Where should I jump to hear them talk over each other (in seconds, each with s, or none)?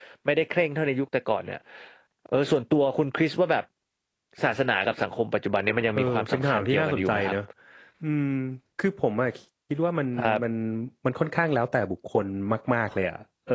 6.0 s